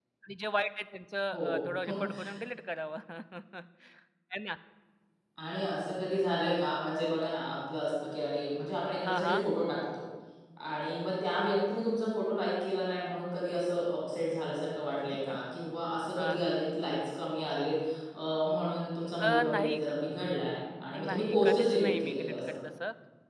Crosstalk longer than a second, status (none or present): present